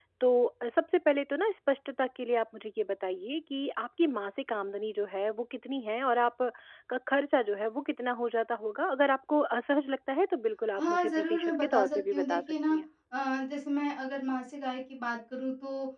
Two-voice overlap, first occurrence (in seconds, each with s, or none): 10.8 s